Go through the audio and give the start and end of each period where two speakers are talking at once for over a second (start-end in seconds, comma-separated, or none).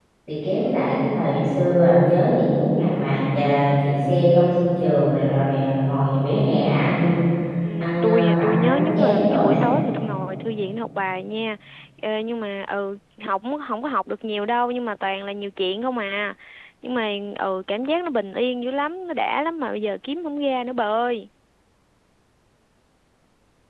8.0-9.6